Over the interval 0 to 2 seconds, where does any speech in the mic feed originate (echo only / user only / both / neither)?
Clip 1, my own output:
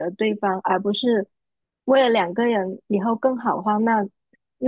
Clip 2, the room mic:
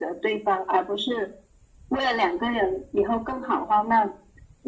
echo only